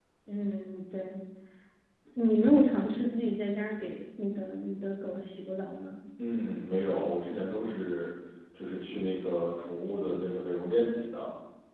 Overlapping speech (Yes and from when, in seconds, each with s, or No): No